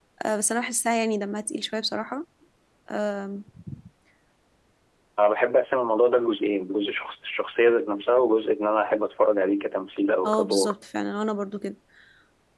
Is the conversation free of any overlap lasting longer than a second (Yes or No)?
Yes